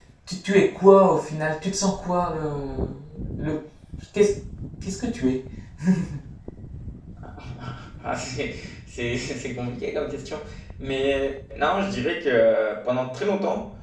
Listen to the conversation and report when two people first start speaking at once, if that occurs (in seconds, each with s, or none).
none